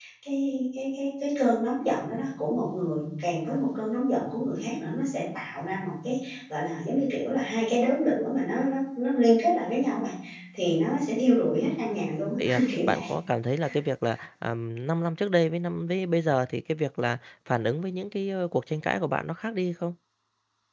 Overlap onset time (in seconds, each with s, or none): 11.9 s